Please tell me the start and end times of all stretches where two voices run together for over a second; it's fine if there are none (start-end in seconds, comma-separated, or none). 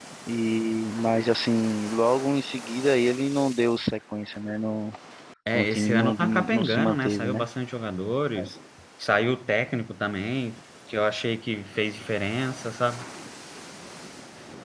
5.5-7.5